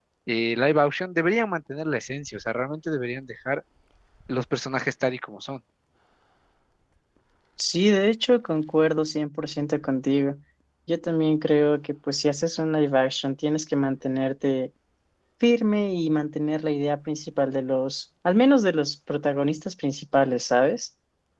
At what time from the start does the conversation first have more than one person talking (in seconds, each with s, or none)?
none